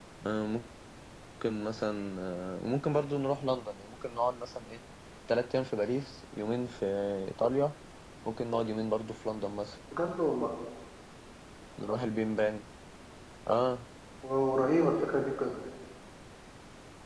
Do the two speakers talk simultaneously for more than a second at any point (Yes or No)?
No